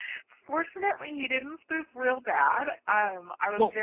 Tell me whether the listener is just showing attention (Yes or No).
Yes